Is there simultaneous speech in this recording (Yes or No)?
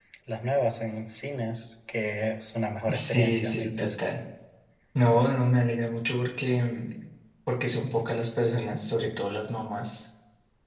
Yes